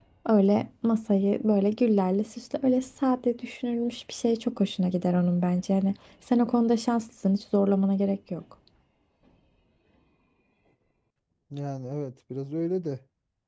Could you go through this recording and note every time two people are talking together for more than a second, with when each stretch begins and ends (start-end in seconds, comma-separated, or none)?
none